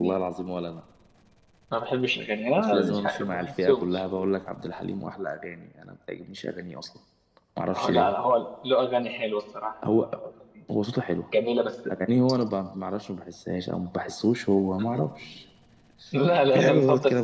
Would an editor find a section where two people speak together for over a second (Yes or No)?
Yes